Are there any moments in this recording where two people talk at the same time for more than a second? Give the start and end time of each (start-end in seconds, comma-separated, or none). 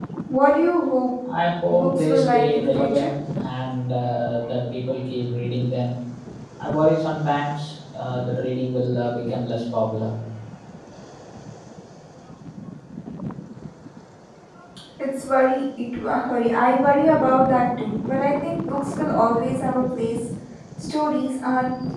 1.7-3.1